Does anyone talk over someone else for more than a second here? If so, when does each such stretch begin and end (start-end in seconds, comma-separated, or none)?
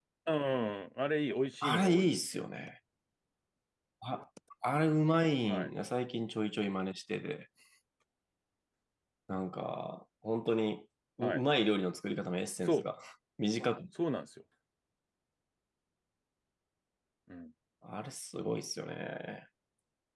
none